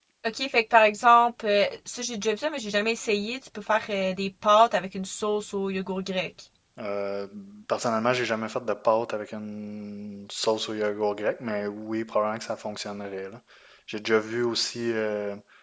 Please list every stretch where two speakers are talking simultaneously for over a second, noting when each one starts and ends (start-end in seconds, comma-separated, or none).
none